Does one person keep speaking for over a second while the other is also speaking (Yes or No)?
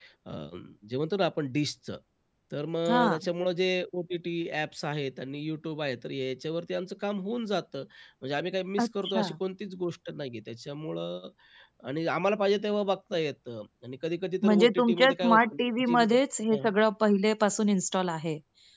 Yes